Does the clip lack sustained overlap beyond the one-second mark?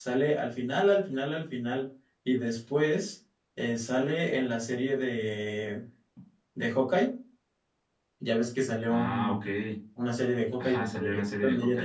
No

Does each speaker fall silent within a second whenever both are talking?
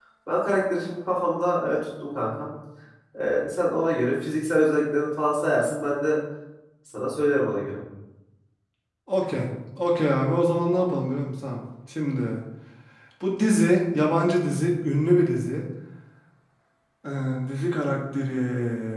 Yes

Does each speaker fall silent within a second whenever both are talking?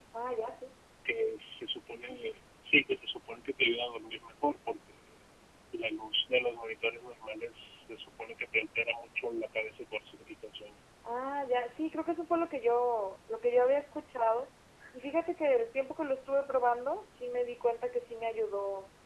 Yes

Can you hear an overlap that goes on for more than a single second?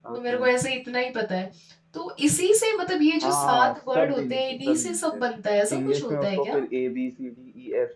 Yes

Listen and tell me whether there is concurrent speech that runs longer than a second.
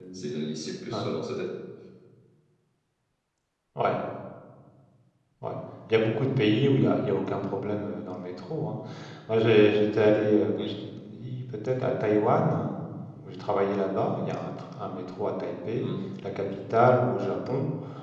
No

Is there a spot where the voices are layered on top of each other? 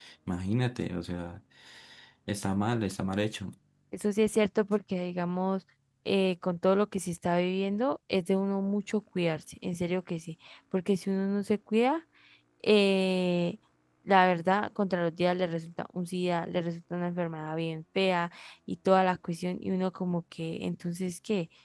No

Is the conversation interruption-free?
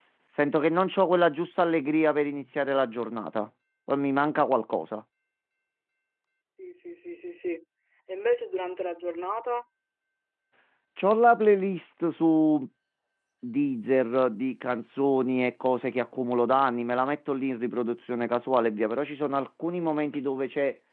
Yes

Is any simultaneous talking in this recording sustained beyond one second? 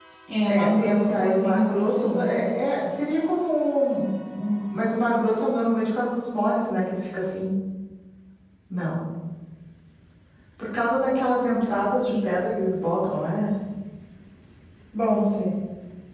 Yes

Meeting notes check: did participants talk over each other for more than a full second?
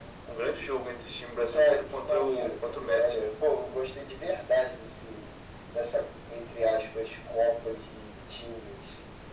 Yes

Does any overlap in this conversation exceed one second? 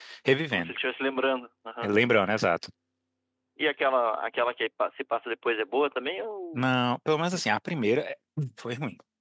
No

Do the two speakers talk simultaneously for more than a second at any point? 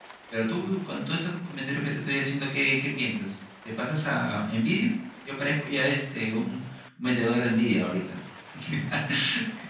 No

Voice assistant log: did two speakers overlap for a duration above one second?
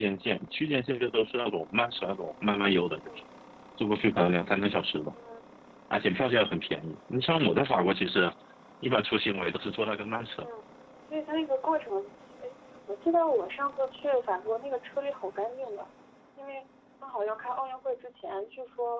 No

